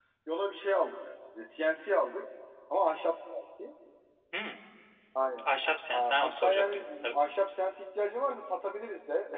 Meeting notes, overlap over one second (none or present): present